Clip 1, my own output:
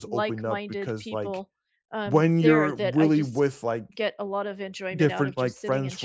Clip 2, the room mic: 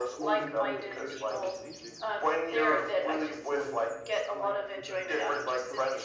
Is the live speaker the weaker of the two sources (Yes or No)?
Yes